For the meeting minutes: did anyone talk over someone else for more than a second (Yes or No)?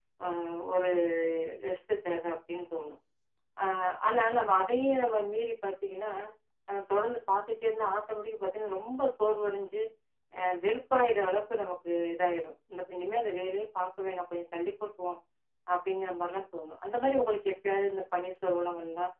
No